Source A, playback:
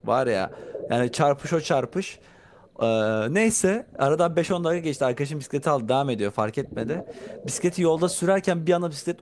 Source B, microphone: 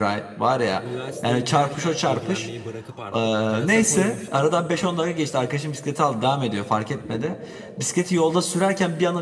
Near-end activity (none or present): present